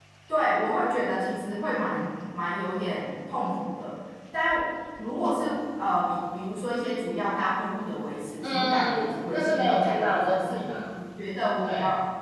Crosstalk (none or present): present